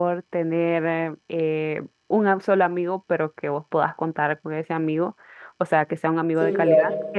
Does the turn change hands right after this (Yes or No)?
No